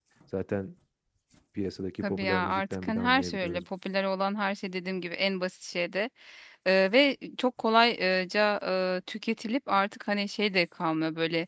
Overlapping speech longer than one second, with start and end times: 2.0-3.6

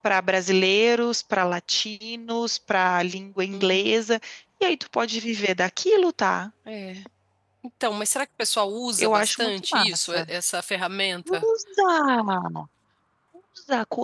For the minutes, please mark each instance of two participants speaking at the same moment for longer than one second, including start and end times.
9.0-10.2

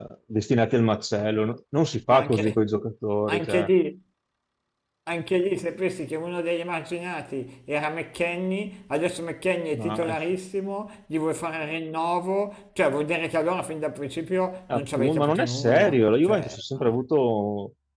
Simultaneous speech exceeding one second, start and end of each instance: 14.7-16.6

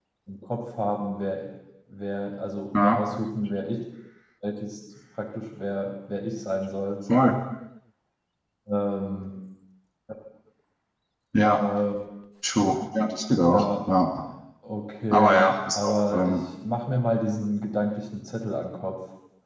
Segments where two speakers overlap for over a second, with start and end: 15.1-16.4

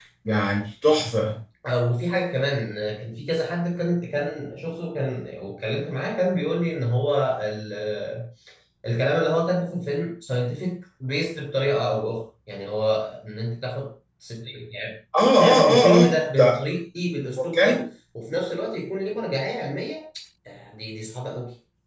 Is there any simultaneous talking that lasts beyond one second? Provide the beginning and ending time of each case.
15.4-16.6

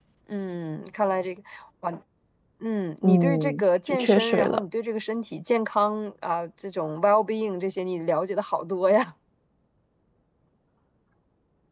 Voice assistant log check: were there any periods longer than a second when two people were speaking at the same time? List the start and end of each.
3.0-4.6

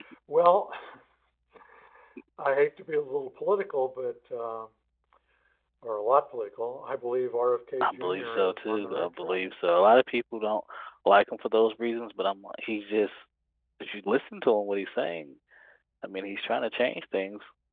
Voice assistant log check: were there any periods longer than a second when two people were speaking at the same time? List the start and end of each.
7.8-9.4

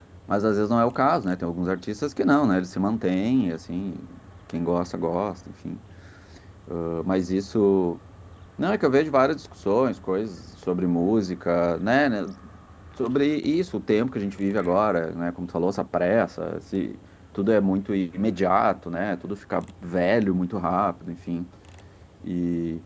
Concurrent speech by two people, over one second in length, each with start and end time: none

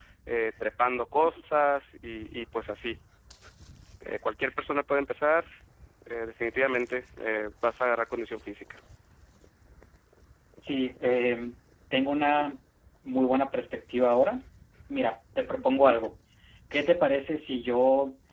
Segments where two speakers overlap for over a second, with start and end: none

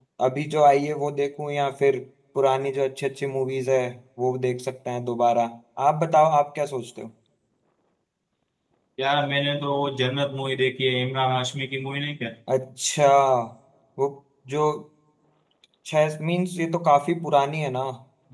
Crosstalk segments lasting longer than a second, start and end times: none

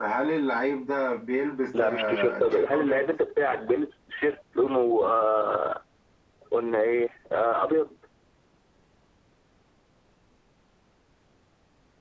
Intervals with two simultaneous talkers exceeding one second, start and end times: 1.8-3.0

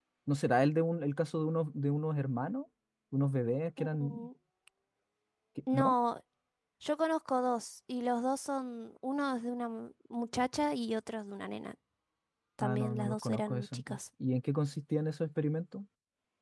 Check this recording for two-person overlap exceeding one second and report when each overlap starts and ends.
12.6-14.0

